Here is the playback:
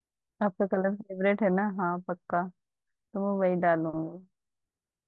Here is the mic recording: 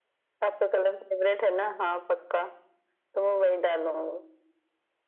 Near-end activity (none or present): none